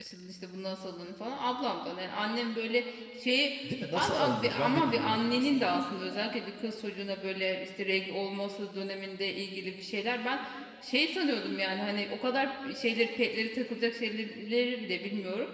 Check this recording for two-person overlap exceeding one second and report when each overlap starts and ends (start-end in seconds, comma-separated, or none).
4.0-5.6